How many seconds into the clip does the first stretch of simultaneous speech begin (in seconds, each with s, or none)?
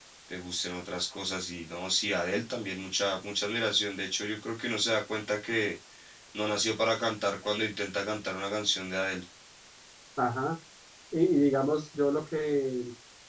none